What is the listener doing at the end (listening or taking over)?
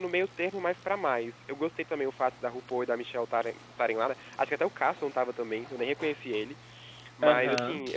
listening